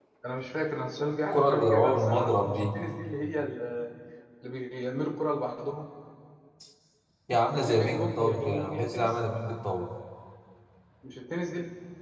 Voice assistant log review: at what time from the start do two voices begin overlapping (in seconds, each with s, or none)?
1.3 s